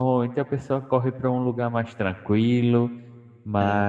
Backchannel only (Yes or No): Yes